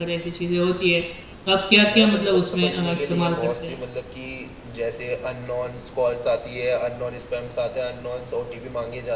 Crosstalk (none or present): present